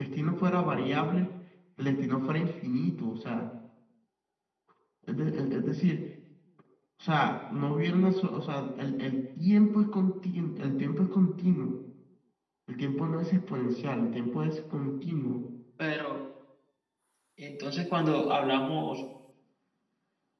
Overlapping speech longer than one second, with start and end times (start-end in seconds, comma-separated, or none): none